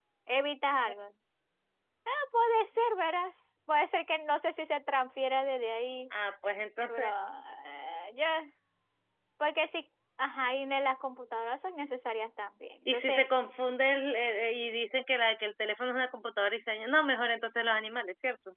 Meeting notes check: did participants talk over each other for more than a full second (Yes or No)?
No